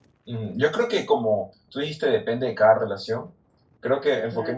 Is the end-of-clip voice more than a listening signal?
No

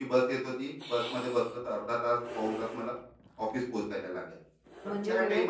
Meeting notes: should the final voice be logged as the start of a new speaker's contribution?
Yes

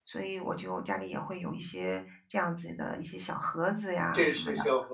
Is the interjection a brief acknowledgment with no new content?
No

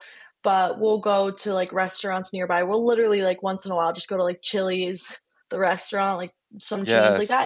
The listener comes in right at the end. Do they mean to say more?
No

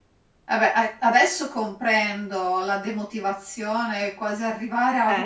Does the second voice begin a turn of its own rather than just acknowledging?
No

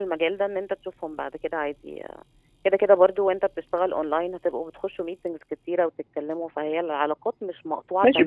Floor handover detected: Yes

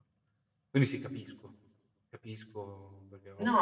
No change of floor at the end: No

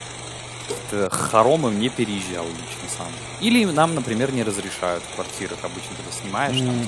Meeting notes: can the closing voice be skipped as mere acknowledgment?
No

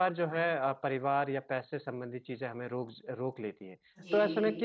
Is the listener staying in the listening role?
Yes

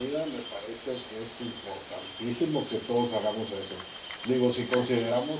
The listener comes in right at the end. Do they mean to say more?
No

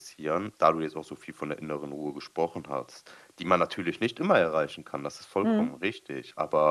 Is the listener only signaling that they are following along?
Yes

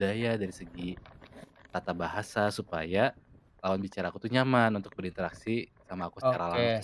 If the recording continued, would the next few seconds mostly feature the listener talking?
Yes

